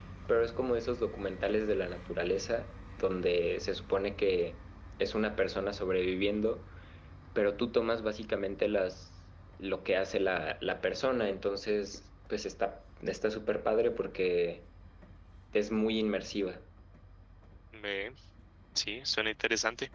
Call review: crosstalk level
none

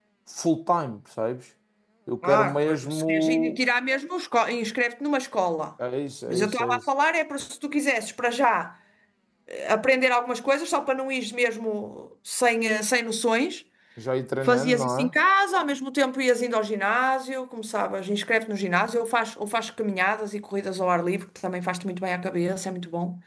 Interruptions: present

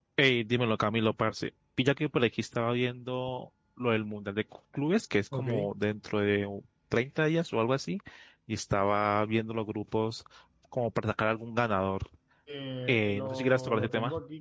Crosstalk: present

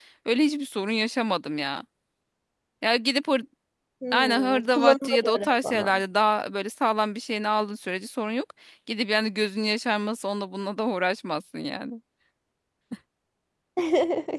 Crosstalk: present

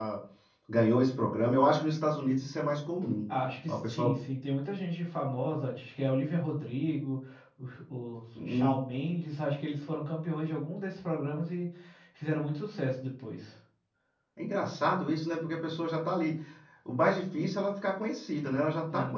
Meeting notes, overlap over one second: none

